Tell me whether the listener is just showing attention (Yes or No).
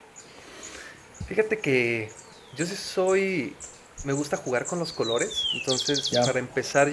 Yes